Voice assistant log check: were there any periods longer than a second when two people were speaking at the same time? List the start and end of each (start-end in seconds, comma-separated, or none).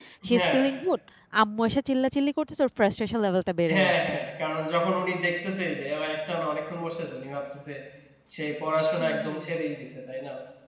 none